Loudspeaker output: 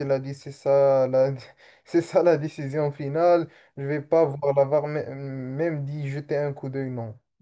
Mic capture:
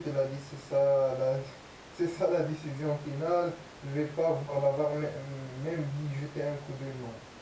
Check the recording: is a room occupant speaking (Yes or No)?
No